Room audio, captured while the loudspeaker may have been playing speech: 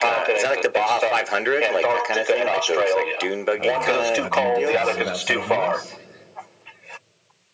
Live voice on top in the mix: No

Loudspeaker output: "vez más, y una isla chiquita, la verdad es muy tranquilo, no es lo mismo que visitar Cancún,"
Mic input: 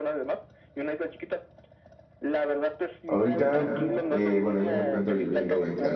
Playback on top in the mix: No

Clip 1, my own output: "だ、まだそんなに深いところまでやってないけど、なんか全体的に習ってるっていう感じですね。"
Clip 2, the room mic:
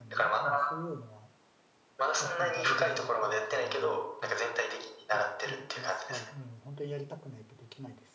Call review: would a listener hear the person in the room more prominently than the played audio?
No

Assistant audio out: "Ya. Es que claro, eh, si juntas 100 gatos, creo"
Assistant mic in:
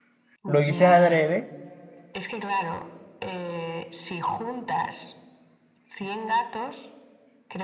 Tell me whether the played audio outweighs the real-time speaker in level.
No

